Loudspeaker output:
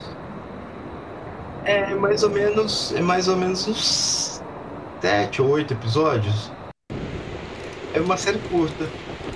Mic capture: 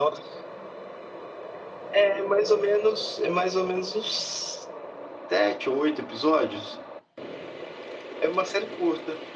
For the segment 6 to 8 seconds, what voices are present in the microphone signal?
echo only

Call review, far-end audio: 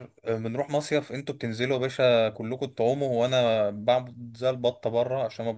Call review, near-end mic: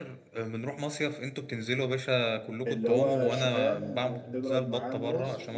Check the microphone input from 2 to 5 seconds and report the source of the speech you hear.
both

